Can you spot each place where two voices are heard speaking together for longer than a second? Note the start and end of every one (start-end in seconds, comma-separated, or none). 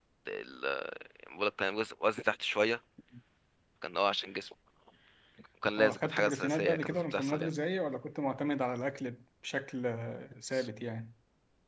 5.8-7.5